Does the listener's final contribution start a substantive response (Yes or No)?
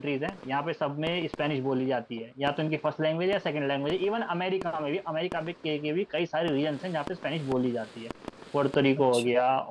No